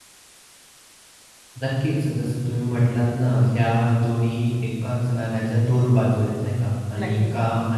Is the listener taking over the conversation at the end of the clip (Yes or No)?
No